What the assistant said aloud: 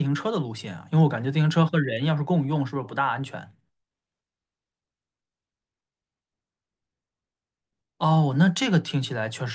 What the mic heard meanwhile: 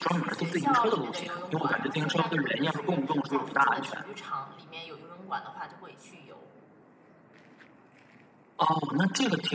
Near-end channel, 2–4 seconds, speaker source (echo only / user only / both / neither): both